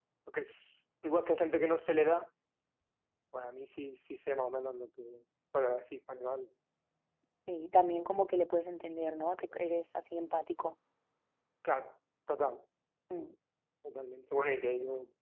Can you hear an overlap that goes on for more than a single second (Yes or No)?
No